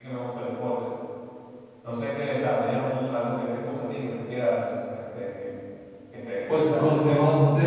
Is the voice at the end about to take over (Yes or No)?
Yes